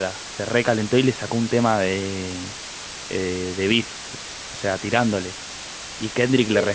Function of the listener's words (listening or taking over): listening